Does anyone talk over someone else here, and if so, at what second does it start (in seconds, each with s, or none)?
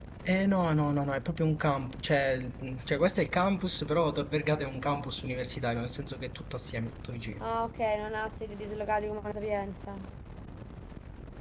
none